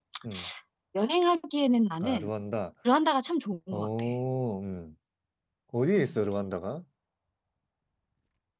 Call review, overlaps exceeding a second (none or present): none